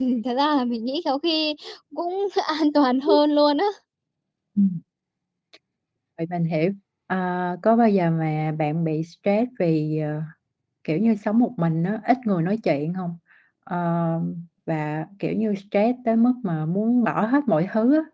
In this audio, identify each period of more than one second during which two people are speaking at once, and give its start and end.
none

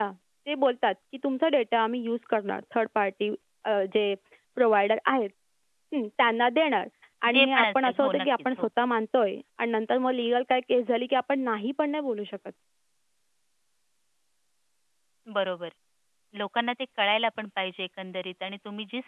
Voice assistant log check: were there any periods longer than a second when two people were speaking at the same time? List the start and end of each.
7.3-8.7

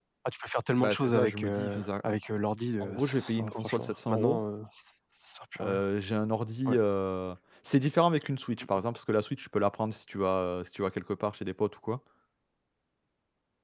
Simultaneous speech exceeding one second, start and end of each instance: 0.8-2.1, 2.8-4.4

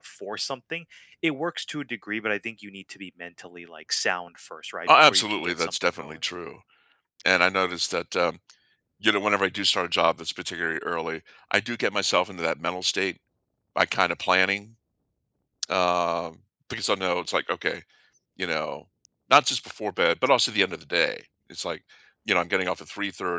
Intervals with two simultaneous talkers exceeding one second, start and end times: 4.9-6.2

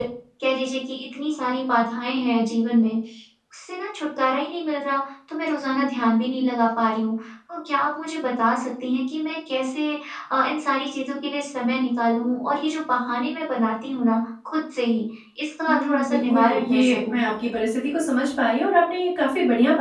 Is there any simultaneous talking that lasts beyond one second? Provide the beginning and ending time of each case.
15.7-17.2

